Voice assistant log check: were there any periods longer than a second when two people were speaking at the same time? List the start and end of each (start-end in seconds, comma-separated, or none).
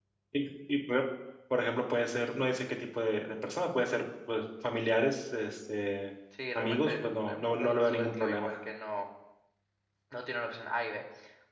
6.6-8.6